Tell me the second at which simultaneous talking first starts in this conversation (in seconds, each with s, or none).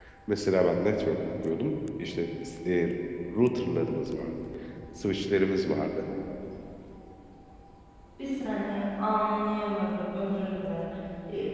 none